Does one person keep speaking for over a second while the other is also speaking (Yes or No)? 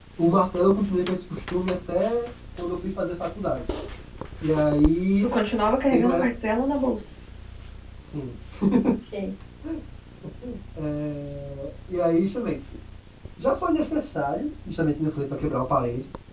No